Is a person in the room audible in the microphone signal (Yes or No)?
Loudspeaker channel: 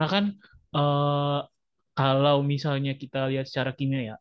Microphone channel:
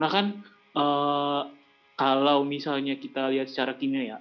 No